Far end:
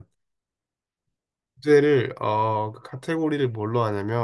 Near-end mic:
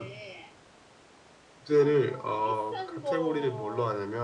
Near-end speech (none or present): present